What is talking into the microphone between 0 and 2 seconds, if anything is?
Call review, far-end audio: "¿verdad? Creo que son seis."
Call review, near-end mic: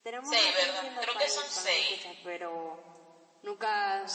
both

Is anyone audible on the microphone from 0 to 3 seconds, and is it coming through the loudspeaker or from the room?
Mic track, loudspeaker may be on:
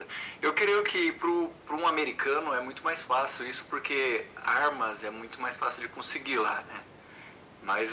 echo only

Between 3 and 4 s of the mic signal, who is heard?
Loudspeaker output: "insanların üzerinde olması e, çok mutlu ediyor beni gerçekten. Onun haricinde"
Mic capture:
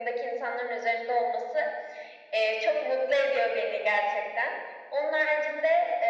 echo only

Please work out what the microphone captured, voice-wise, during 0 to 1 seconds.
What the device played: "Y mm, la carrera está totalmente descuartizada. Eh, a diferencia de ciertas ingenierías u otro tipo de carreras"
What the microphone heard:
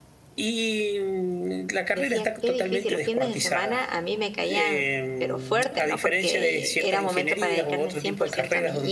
echo only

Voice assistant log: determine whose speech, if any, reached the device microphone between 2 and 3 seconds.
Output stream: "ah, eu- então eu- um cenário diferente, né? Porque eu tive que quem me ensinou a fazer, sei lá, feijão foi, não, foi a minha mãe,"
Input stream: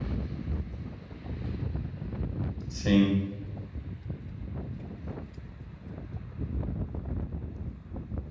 user only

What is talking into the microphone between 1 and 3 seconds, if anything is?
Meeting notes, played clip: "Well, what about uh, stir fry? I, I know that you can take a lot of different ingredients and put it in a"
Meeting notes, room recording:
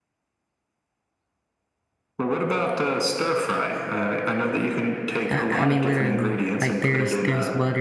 echo only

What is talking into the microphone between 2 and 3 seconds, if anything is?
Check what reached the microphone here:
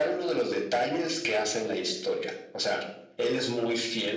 echo only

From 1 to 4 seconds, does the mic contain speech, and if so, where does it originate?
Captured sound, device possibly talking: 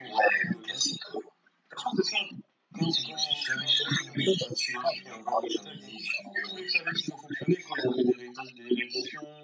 echo only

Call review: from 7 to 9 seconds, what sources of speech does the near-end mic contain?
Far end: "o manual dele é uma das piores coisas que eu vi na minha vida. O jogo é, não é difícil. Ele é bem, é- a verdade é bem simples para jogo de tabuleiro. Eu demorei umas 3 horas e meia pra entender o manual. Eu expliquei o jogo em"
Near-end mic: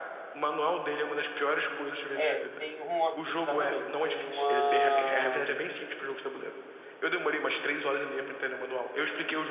echo only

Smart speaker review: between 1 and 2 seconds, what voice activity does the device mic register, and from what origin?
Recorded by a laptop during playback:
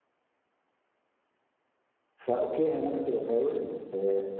neither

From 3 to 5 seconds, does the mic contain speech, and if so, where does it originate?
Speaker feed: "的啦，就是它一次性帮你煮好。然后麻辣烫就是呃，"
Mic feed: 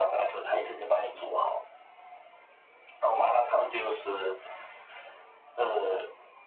echo only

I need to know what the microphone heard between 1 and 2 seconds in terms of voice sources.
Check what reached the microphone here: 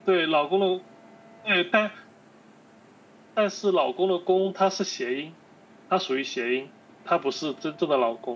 user only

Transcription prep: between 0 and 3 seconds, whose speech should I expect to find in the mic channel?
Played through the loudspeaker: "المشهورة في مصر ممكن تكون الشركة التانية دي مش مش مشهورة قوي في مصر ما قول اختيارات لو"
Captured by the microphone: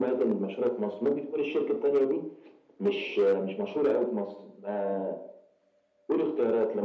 echo only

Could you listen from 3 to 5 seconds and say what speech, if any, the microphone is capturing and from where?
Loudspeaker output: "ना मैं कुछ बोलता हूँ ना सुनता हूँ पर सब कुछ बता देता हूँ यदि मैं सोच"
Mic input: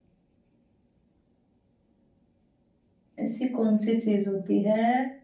user only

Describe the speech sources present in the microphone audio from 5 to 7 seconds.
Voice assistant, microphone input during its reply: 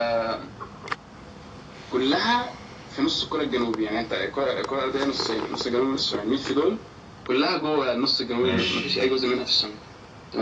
echo only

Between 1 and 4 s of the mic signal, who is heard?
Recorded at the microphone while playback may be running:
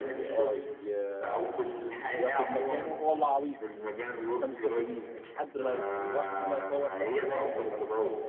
both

